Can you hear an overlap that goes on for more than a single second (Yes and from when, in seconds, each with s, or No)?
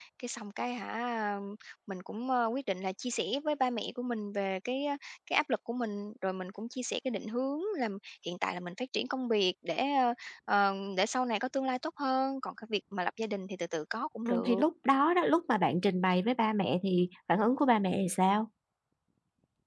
No